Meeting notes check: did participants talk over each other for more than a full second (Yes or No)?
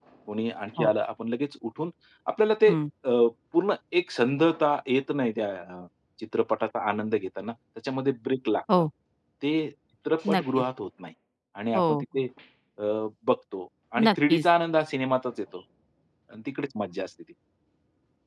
No